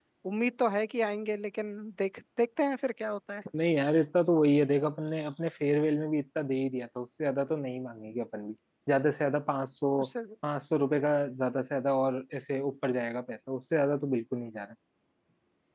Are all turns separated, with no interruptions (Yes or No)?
Yes